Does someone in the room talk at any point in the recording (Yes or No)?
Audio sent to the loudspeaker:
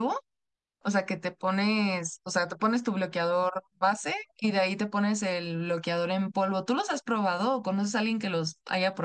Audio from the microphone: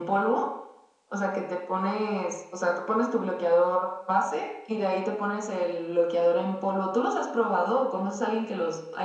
No